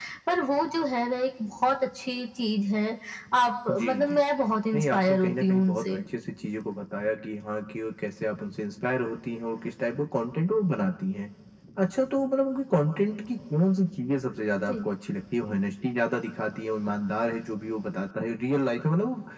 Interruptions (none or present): present